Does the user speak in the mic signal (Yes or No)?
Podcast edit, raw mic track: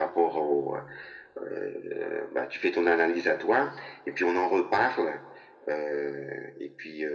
No